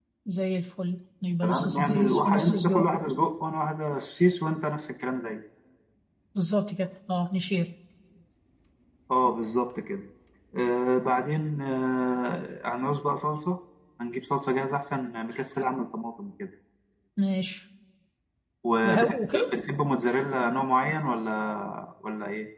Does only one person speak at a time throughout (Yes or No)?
No